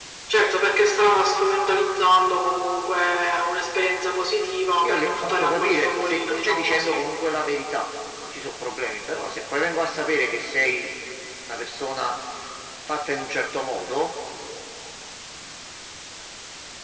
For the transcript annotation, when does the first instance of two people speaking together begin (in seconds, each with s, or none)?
4.8 s